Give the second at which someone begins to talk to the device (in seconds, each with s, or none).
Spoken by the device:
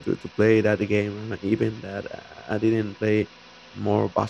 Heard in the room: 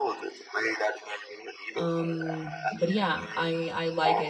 1.7 s